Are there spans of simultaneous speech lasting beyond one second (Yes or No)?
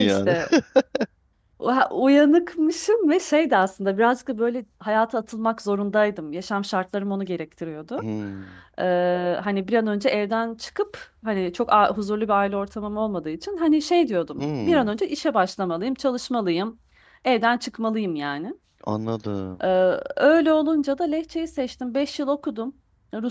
No